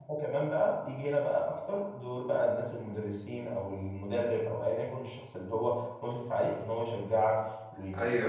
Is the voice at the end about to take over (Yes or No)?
Yes